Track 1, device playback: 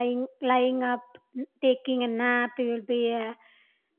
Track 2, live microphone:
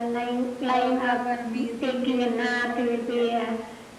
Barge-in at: 0.7 s

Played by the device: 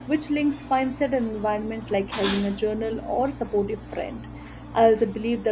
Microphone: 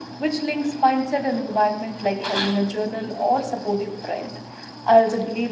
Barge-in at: none

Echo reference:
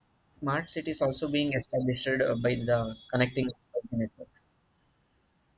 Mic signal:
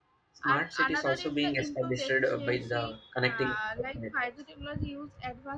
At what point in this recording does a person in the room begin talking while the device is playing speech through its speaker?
0.5 s

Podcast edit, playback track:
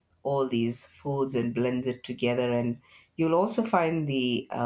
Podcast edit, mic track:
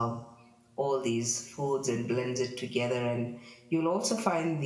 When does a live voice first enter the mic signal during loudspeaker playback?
none

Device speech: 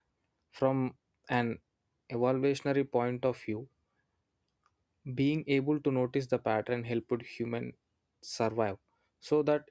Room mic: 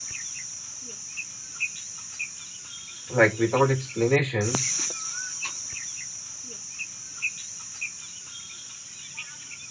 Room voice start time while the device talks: 3.1 s

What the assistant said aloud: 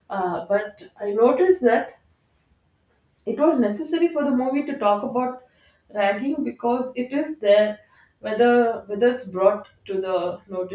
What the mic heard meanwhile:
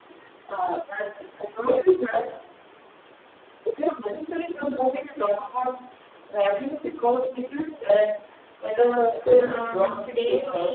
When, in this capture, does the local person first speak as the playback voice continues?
9.1 s

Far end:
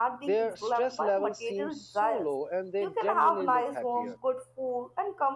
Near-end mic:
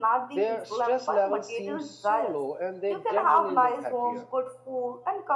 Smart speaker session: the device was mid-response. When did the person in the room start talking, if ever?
none

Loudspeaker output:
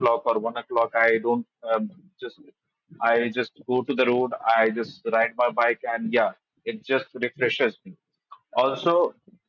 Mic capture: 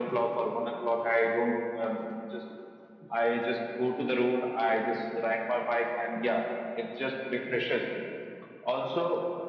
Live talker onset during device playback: none

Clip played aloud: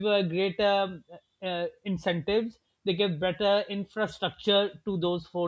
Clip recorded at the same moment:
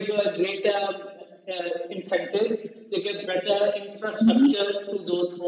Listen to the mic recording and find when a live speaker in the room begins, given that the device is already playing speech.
4.2 s

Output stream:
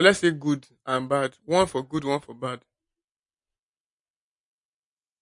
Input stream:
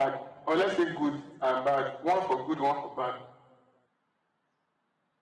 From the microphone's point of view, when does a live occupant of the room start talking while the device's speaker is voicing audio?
none

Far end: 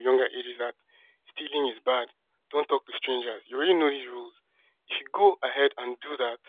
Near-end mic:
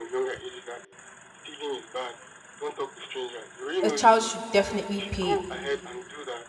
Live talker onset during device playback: 3.8 s

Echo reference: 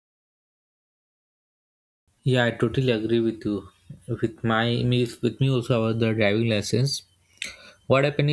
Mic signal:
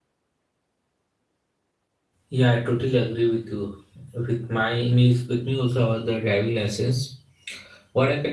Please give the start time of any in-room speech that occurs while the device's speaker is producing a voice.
none

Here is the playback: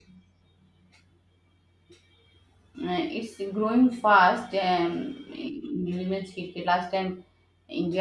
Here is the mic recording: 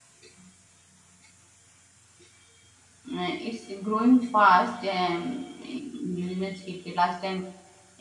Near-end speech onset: none

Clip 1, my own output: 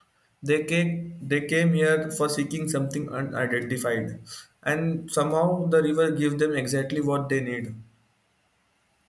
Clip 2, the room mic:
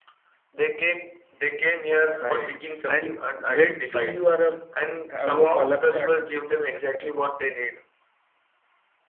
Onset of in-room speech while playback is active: 2.2 s

